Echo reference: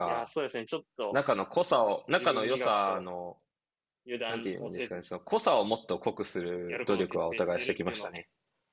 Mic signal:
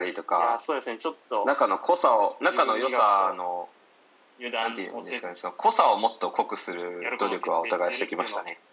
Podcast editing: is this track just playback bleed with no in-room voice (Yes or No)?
Yes